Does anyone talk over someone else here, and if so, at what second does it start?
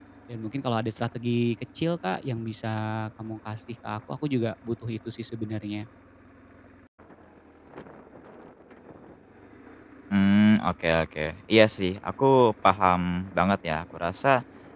none

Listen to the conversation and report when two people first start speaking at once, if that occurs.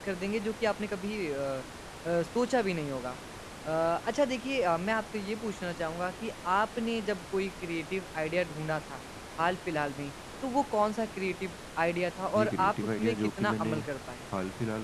12.3 s

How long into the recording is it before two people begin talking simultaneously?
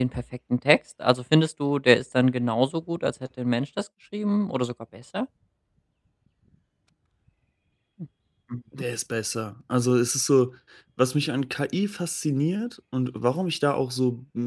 none

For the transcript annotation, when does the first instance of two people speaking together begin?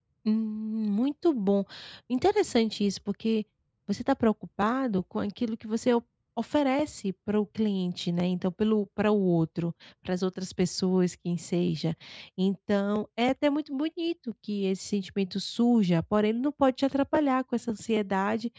none

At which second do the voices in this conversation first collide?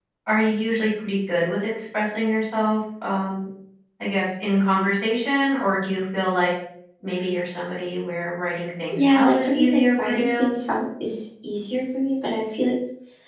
8.9 s

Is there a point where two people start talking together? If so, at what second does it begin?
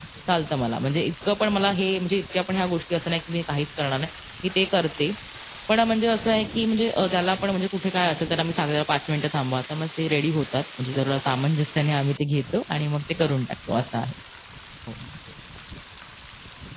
none

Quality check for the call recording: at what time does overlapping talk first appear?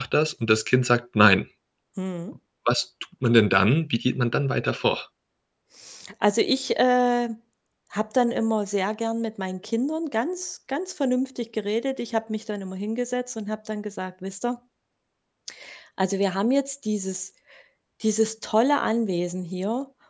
none

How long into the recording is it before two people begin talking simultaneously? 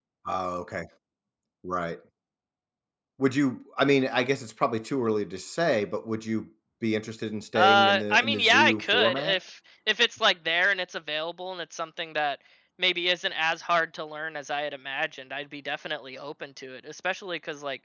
7.5 s

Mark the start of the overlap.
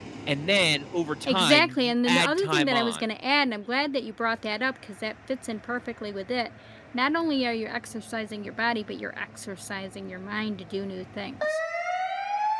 1.3 s

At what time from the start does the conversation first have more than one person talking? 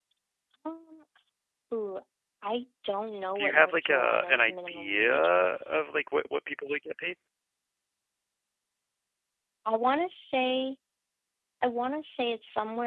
3.4 s

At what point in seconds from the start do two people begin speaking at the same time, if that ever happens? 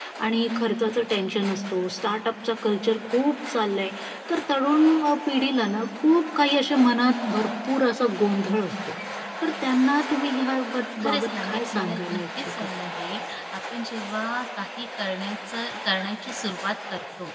11.0 s

